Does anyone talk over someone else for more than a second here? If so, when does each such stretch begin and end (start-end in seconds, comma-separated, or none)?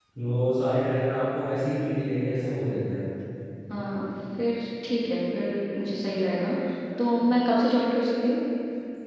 none